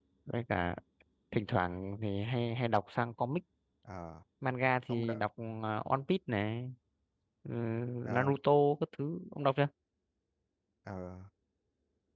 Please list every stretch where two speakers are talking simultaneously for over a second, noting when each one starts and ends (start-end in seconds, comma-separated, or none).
none